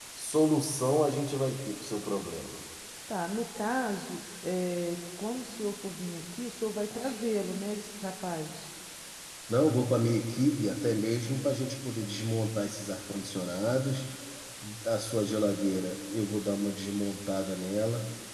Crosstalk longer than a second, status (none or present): none